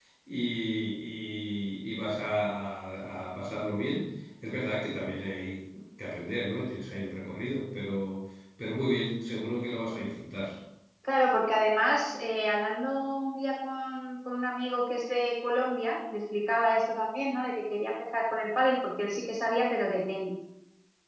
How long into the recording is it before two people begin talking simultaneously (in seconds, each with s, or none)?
none